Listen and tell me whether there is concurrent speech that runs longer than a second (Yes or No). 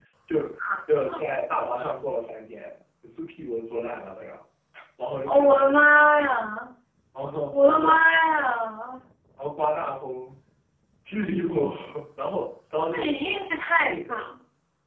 Yes